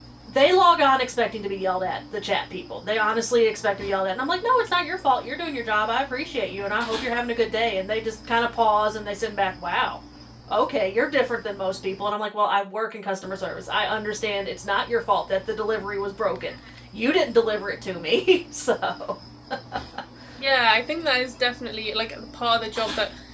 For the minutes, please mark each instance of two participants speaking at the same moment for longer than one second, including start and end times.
none

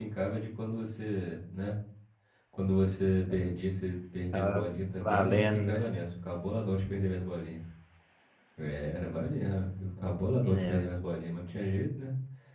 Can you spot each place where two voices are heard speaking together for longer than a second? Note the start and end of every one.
4.3-5.8

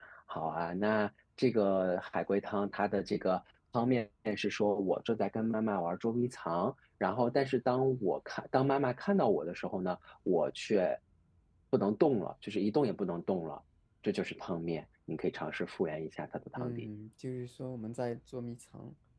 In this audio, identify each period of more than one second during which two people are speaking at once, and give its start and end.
none

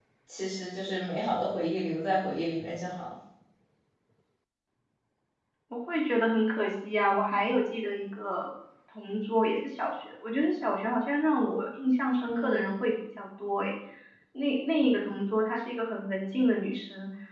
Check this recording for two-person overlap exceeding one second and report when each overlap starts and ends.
none

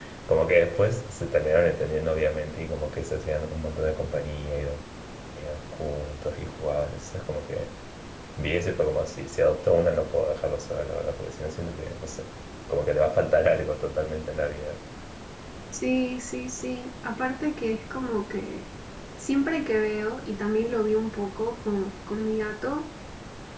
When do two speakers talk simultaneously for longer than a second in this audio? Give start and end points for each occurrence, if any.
none

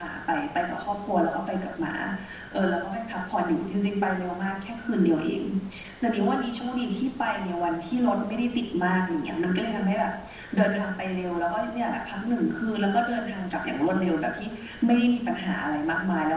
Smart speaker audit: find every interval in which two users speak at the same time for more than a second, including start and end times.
none

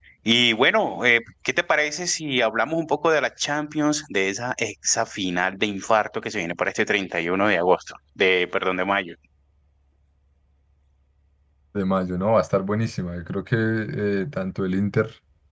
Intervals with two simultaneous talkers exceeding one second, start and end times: none

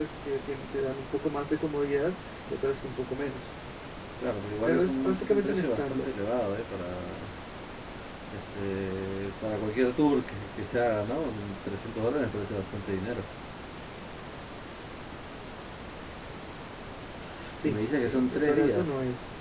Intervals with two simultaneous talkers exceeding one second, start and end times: 4.6-6.1, 17.6-18.9

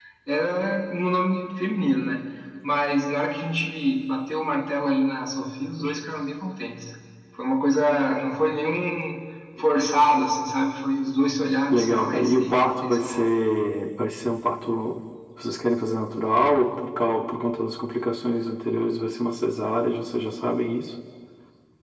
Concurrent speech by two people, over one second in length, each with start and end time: 11.7-13.3

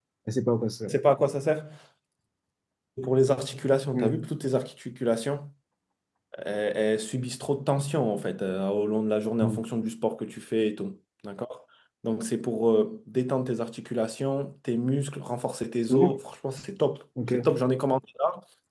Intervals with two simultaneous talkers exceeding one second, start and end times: none

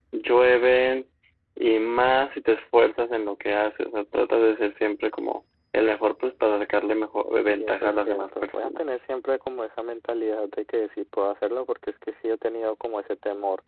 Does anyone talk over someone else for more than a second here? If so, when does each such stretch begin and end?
7.5-8.8

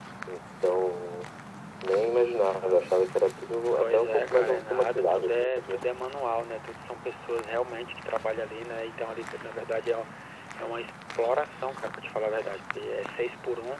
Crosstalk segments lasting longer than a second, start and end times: 3.8-5.8

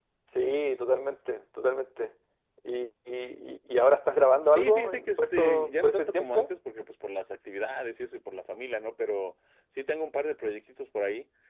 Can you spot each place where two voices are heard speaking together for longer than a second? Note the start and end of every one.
4.5-6.5

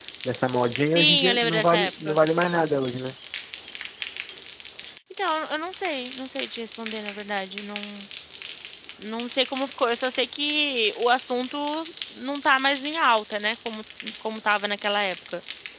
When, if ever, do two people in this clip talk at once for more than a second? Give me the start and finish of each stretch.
0.9-2.1

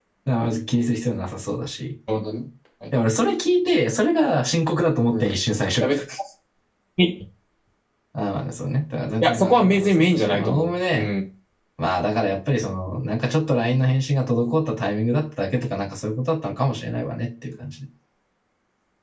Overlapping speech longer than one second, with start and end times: 9.2-11.1

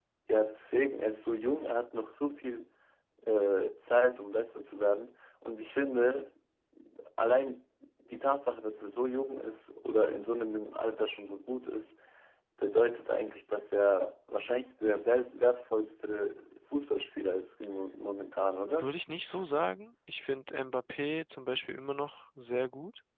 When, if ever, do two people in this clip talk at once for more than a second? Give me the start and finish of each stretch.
none

